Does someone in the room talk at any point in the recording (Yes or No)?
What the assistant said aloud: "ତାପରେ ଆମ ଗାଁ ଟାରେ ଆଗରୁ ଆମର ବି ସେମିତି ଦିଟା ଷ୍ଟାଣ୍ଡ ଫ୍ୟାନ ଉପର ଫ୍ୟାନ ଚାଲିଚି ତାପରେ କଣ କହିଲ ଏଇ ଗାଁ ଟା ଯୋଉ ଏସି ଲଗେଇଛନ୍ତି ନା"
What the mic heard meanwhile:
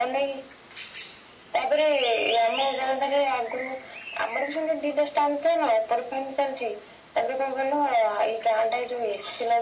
No